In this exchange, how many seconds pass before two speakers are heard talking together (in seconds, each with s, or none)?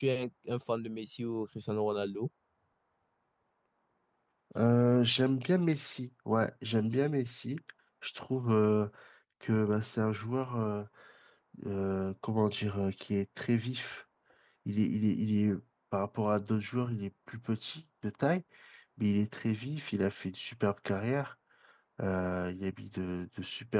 none